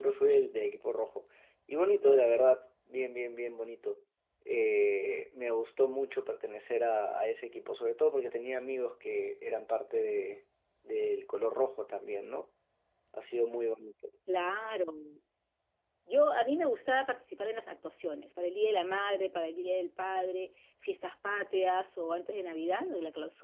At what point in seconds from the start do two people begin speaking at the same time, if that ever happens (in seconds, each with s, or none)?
none